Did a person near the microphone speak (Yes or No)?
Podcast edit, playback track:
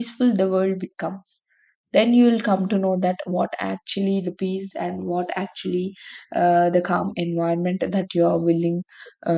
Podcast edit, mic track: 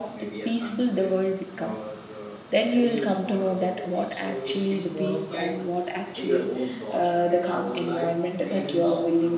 Yes